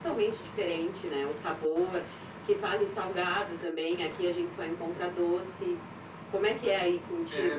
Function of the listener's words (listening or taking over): taking over